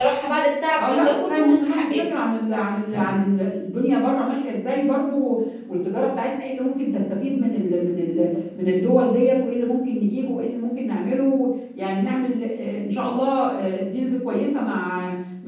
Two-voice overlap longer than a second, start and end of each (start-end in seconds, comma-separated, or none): 0.8-2.0